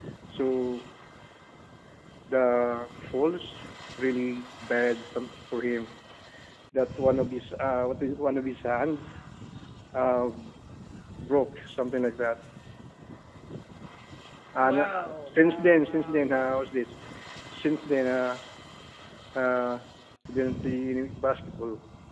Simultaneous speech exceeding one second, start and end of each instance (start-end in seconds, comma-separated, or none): 14.6-16.4